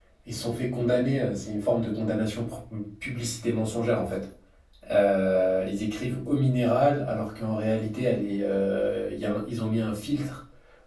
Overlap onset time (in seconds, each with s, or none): none